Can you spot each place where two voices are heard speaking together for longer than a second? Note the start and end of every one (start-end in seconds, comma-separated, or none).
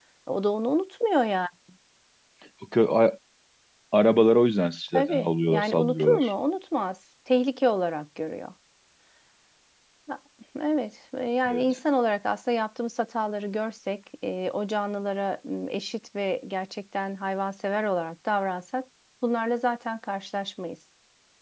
4.9-6.3